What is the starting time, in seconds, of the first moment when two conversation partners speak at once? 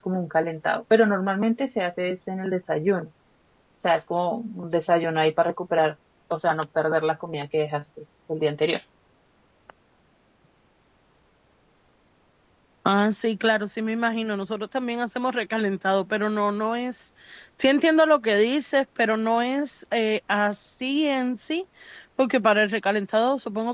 none

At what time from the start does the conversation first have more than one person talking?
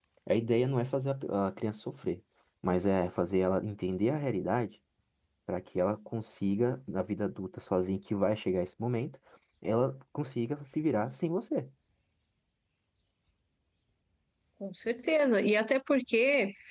none

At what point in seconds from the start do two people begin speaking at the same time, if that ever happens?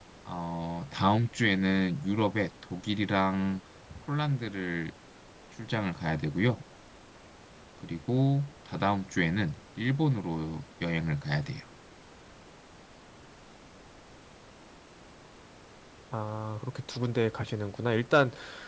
none

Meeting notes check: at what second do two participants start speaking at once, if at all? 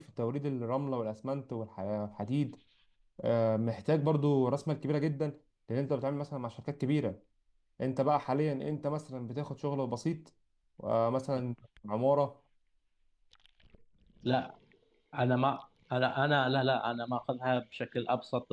none

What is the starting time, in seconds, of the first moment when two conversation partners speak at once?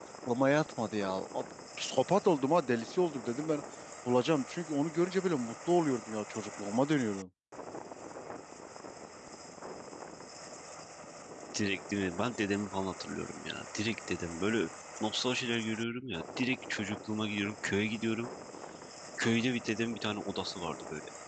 none

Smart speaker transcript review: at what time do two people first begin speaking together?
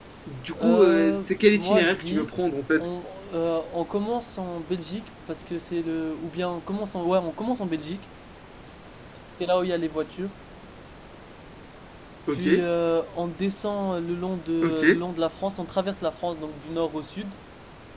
0.6 s

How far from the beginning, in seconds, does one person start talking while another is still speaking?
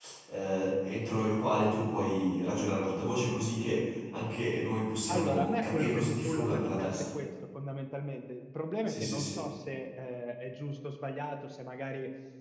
5.1 s

